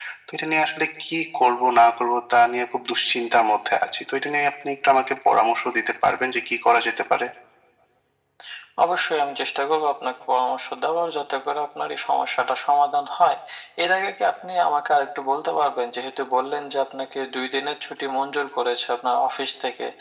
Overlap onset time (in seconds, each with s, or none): none